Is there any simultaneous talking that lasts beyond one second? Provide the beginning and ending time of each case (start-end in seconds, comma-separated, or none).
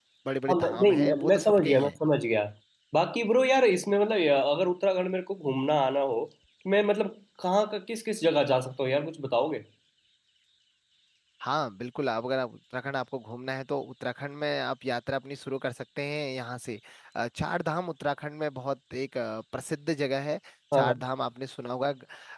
0.5-2.0